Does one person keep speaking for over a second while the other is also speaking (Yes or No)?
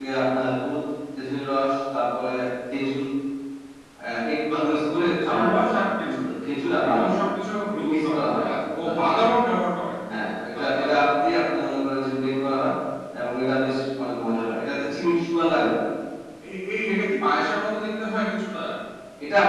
Yes